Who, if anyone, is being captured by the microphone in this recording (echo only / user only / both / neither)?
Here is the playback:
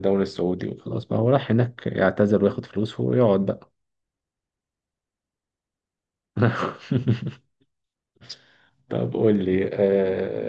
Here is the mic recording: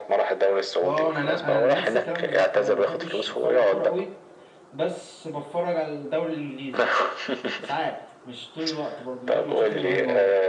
both